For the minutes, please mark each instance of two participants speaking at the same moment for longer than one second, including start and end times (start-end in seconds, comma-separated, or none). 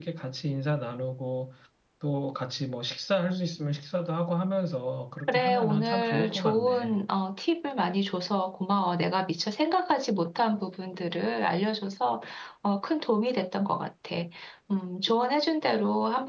5.3-7.0